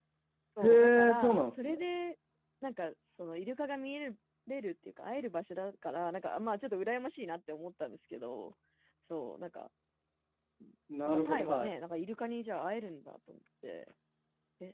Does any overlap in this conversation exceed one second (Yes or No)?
Yes